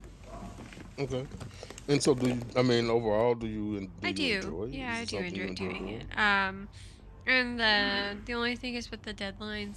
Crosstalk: present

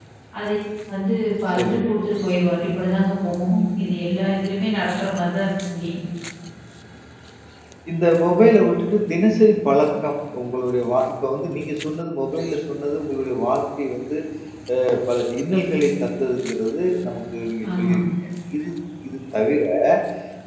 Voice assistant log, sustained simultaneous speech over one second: none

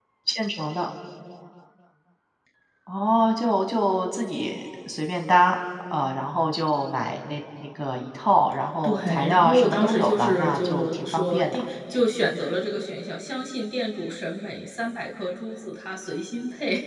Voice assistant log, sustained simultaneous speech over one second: present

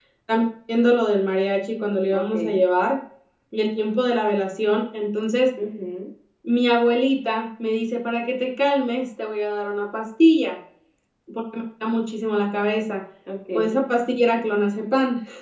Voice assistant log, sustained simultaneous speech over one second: none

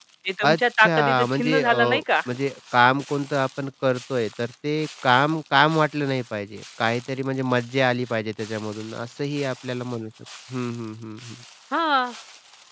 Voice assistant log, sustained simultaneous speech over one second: present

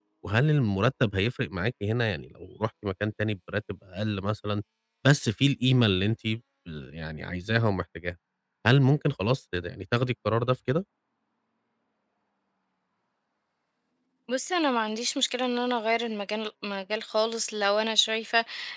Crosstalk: none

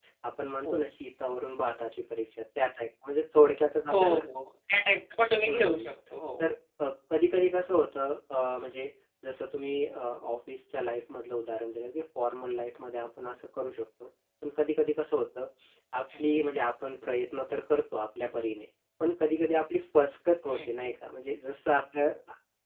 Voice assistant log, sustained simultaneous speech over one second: none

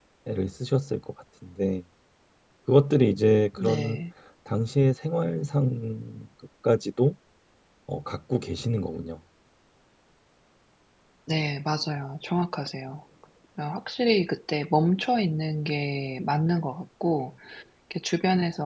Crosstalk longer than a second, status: none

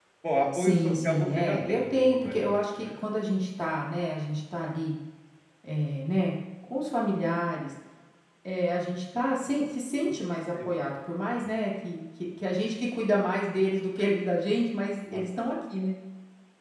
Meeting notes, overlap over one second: present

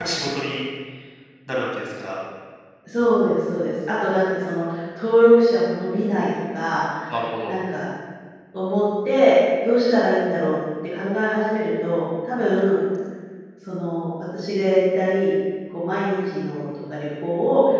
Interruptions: none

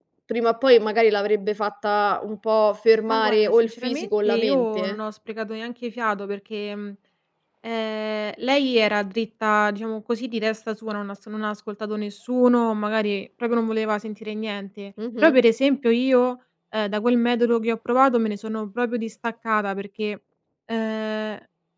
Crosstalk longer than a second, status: present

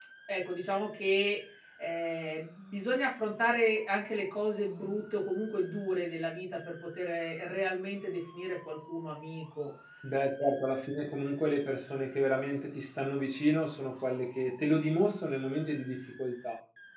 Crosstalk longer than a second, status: none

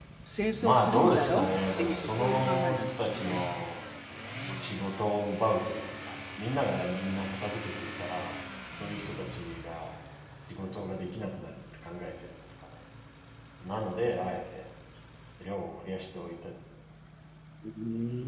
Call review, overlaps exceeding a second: present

